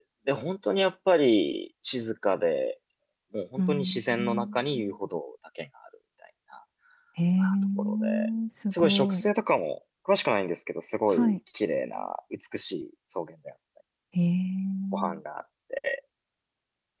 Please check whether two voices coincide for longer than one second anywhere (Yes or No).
Yes